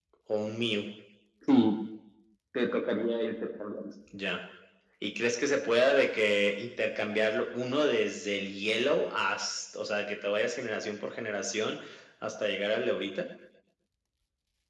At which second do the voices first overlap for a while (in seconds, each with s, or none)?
none